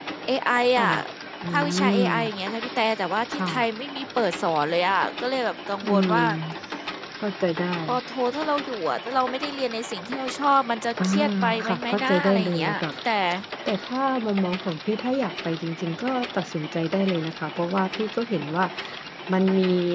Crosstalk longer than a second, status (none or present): present